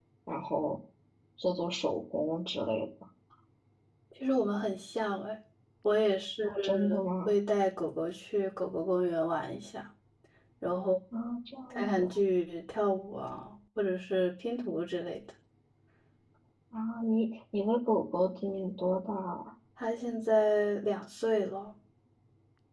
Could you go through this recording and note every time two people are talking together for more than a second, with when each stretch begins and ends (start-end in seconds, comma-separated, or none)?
none